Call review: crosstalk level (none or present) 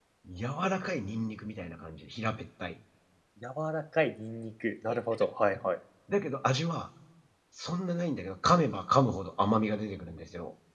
none